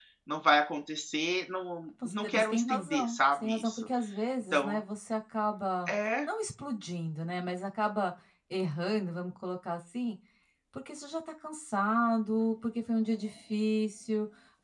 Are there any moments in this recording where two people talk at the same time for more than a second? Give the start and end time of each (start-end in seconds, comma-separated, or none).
2.0-3.9